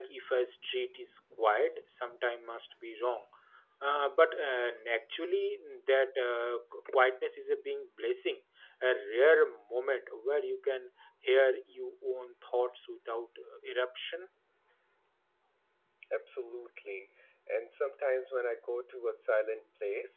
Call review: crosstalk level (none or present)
none